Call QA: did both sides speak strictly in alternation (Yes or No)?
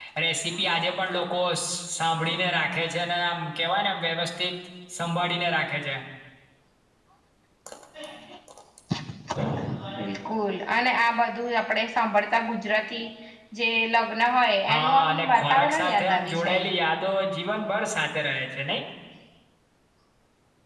No